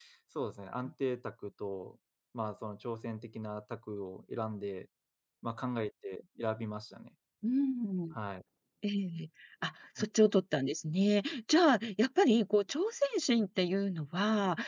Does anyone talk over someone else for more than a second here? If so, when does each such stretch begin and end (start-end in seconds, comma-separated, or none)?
none